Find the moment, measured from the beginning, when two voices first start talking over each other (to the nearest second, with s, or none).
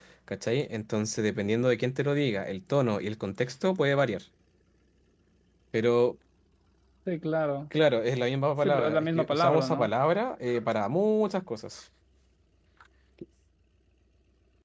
9 s